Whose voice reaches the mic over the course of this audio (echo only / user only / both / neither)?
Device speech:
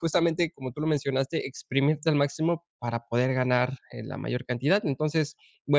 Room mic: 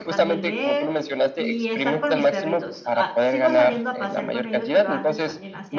both